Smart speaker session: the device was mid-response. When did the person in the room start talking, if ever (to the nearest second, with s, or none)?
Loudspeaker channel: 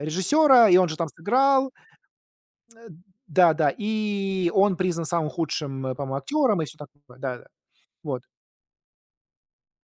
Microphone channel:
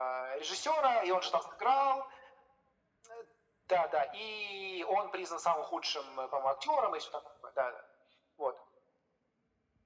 none